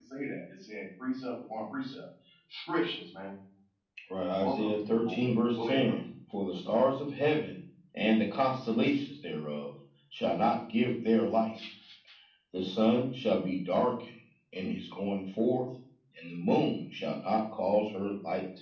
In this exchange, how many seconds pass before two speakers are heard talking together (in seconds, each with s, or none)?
4.3 s